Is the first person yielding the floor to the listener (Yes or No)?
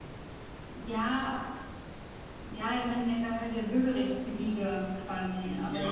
Yes